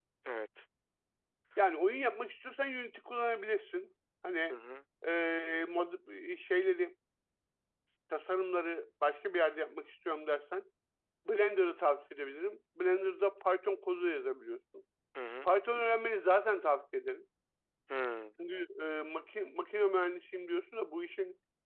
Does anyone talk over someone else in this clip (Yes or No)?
No